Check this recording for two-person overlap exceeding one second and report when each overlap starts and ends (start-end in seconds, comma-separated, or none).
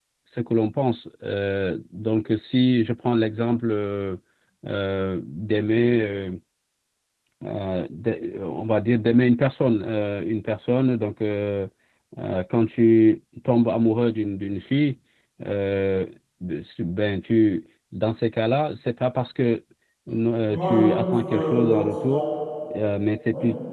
20.5-22.2